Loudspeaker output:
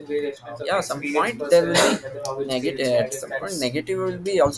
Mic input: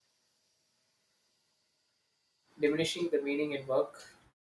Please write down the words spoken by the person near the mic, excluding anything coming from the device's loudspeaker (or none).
diminishing the meaning in work.